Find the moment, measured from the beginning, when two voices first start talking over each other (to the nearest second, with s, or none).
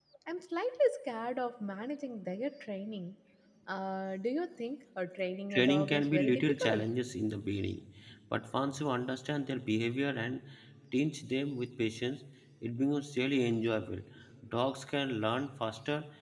6 s